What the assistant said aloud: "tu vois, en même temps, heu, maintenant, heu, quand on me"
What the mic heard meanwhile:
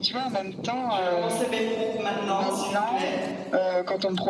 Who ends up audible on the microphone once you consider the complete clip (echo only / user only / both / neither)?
both